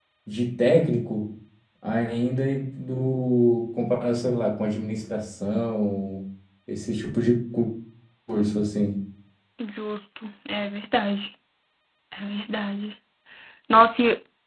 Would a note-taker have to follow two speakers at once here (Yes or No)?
No